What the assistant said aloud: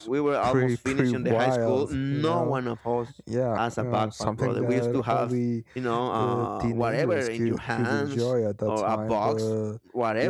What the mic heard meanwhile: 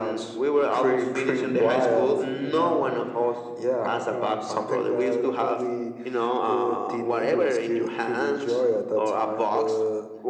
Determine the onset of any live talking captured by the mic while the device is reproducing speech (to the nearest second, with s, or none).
none